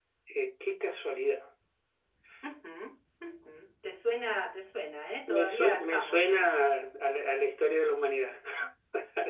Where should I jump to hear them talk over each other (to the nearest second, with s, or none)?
5 s